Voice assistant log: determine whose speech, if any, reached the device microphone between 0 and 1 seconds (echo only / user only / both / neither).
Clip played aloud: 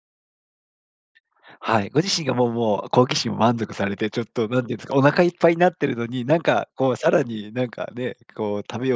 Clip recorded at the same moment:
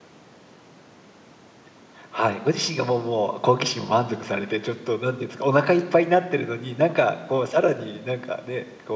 neither